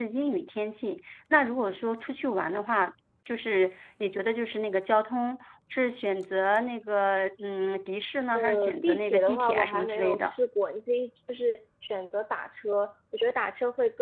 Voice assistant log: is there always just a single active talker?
No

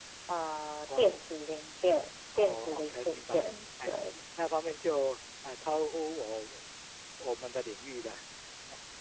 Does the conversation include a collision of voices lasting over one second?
Yes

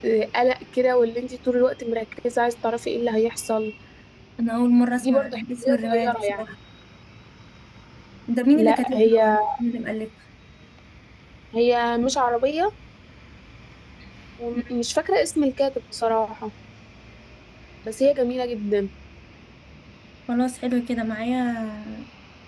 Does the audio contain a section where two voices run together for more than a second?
Yes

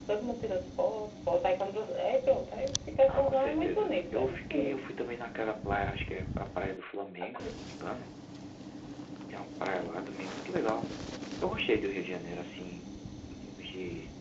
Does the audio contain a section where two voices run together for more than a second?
Yes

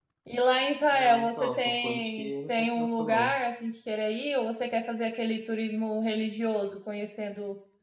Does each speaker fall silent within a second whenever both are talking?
No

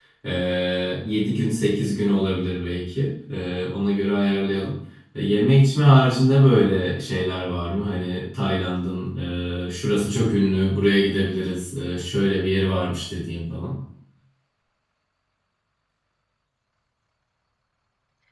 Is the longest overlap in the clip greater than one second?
No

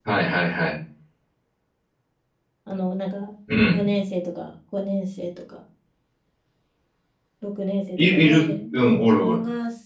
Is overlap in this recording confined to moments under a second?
No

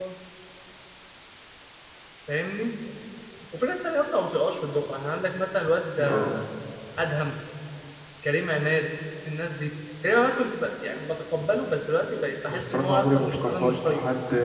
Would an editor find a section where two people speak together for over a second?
Yes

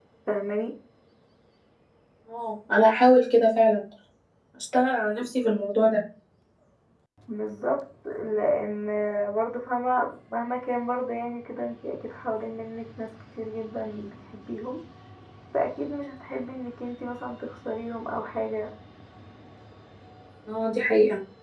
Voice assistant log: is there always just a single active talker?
Yes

